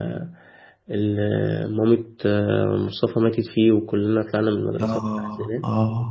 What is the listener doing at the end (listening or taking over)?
taking over